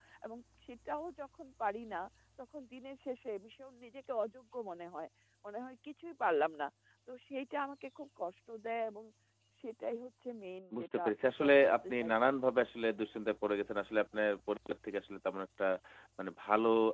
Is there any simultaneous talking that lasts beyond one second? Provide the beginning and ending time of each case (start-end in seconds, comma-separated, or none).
10.8-12.1